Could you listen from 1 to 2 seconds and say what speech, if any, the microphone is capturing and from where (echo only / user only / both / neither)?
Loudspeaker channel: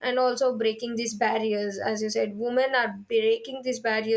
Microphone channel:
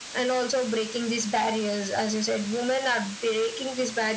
echo only